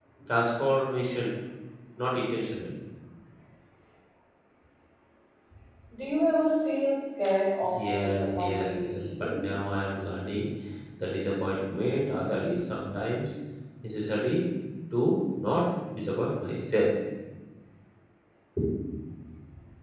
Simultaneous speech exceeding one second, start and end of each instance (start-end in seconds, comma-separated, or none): 7.6-9.3